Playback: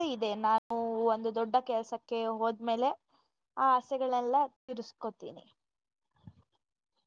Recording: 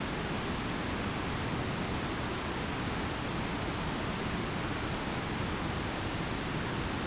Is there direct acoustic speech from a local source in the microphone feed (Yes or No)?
No